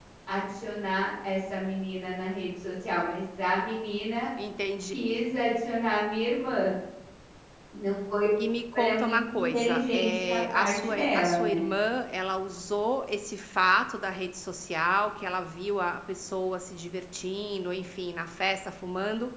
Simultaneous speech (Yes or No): Yes